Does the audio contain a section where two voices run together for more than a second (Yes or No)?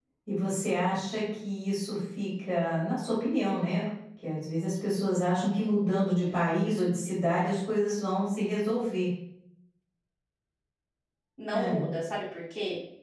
No